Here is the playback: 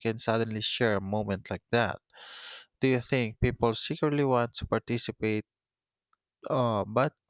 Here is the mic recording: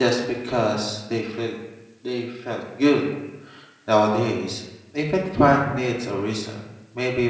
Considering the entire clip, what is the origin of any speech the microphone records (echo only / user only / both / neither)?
user only